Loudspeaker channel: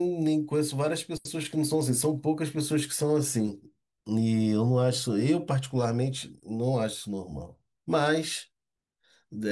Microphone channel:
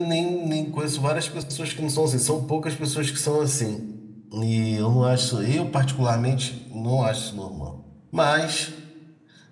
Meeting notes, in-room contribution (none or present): none